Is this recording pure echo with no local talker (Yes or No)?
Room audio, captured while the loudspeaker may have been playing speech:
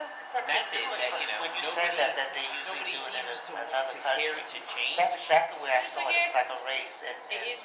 Yes